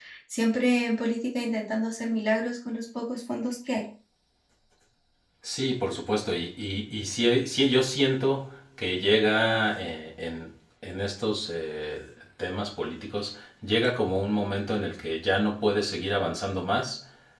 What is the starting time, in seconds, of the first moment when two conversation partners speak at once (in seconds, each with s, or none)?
none